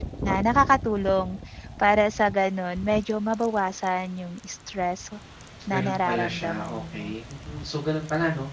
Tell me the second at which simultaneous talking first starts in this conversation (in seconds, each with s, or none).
5.7 s